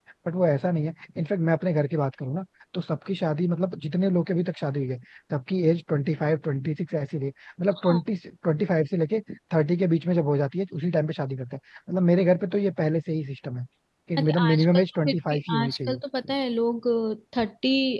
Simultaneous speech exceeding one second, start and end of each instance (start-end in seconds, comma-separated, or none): 14.2-16.0